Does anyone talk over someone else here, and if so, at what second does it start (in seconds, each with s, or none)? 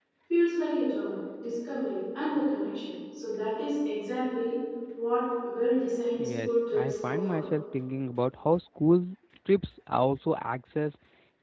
6.2 s